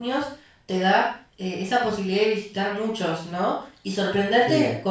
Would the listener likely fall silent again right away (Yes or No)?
Yes